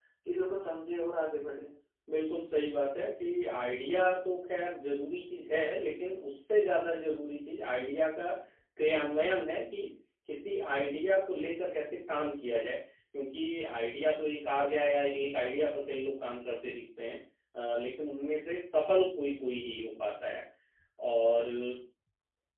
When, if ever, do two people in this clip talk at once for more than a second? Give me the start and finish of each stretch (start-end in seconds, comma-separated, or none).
none